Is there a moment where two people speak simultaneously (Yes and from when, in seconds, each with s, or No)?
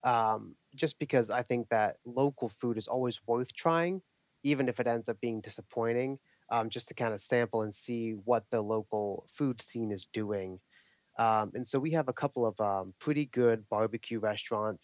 No